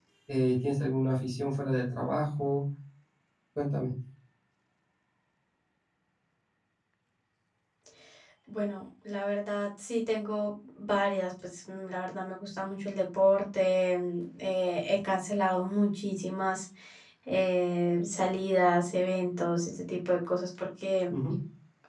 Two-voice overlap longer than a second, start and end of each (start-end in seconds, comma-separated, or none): none